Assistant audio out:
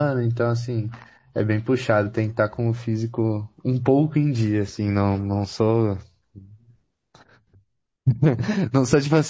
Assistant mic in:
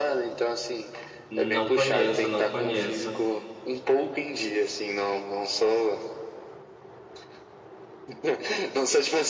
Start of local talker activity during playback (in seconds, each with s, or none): 1.3 s